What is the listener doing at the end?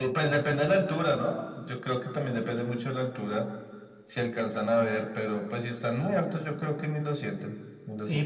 taking over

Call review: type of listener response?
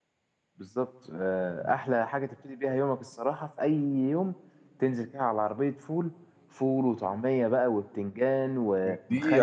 taking over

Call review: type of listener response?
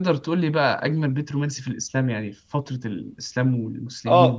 taking over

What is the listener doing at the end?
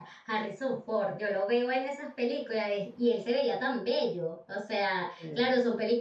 listening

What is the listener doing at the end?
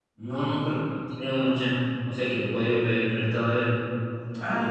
taking over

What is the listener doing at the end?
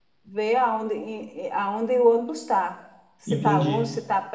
listening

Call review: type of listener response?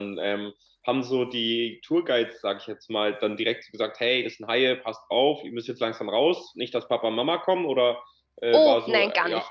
taking over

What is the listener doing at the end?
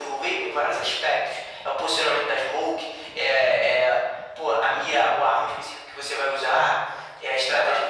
listening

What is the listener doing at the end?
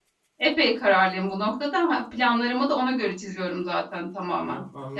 listening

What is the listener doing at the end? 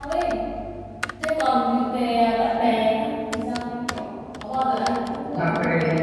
taking over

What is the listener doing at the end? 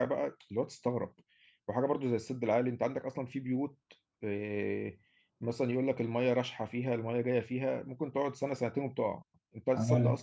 listening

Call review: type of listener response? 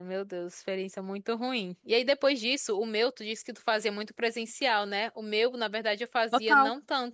listening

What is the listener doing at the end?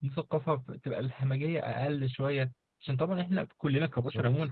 listening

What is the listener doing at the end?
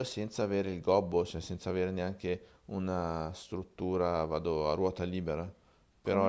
taking over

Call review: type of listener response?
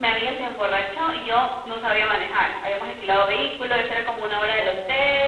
listening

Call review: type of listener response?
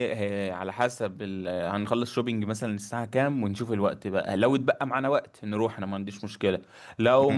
listening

